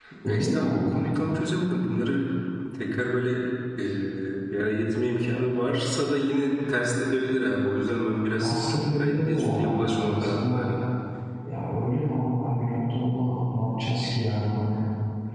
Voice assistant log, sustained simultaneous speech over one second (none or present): present